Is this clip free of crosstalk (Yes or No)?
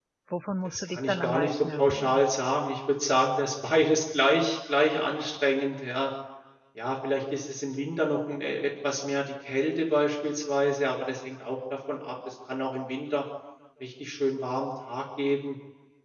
No